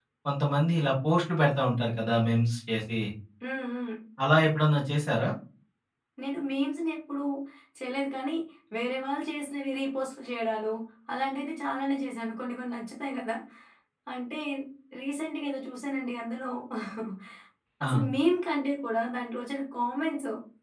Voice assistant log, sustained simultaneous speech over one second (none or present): none